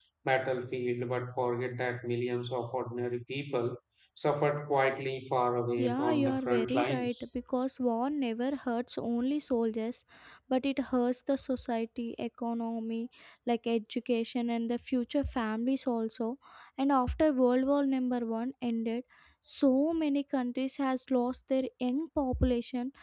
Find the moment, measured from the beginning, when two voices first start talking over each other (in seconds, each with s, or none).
5.8 s